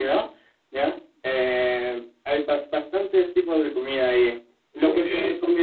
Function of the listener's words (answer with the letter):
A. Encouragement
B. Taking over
A